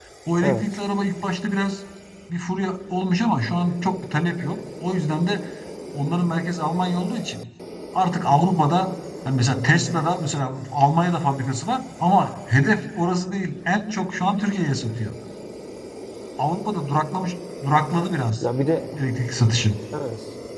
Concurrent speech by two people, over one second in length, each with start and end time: none

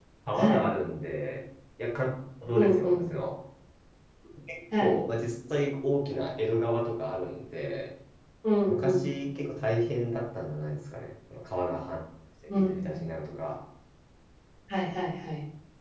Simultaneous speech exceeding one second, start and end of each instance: none

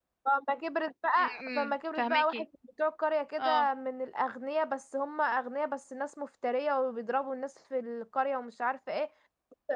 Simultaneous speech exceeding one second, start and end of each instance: 1.2-2.4

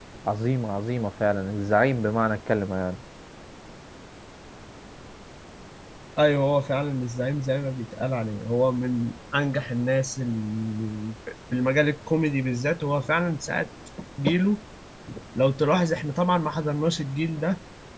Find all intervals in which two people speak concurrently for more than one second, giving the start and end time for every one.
none

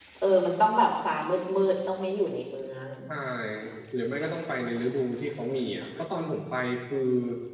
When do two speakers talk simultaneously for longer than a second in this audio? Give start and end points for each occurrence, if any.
none

